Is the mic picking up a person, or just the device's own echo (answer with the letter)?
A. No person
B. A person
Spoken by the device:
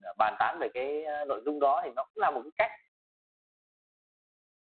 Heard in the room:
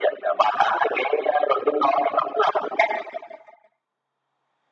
A